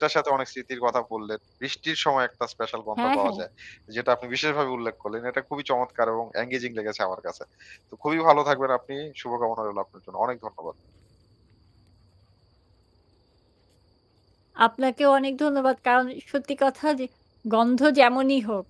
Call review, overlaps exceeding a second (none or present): none